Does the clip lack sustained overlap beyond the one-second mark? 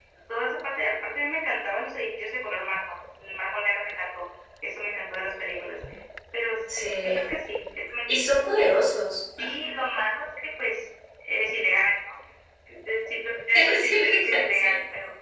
No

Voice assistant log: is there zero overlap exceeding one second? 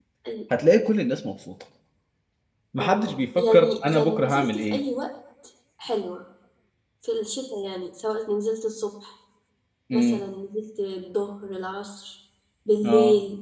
No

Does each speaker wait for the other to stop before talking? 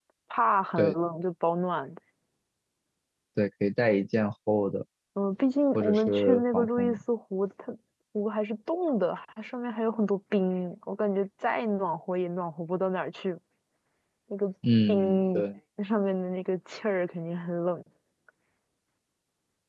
No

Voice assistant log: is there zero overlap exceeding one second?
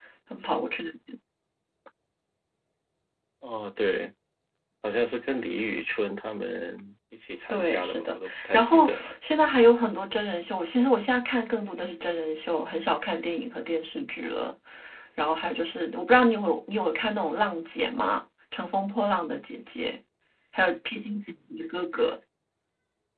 No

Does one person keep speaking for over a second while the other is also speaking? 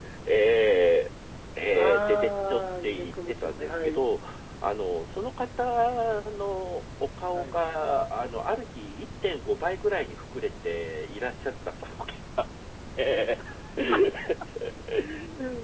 Yes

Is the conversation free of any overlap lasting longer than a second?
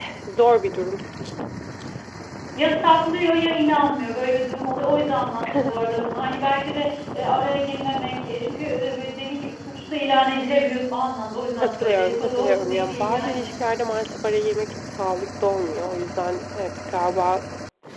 No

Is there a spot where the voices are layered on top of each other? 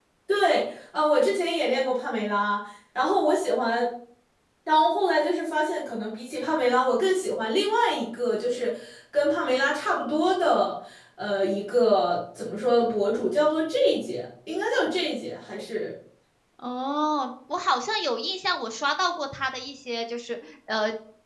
No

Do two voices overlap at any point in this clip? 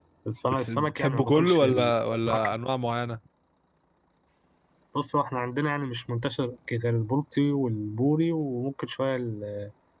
Yes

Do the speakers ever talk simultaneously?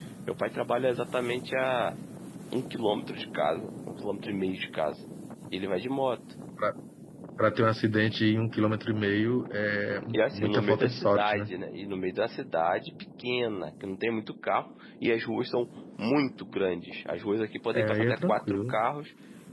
Yes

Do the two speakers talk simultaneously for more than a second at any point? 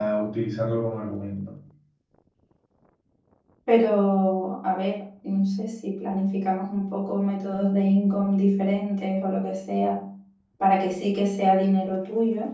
No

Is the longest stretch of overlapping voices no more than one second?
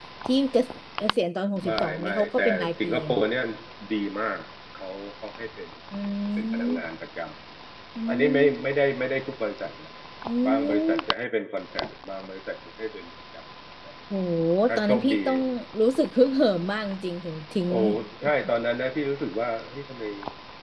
No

